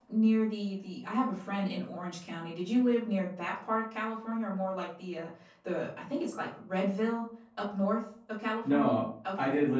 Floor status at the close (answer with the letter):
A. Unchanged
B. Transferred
B